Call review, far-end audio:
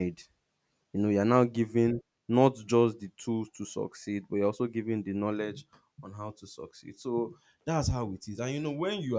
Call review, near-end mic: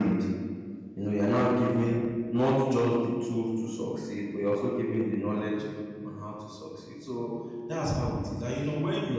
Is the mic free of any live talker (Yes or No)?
Yes